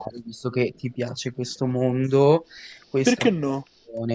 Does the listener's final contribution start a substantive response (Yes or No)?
No